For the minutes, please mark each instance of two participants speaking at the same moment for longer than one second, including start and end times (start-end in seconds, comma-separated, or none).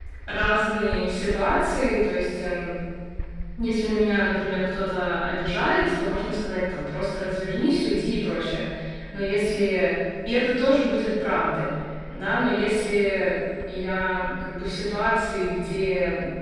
none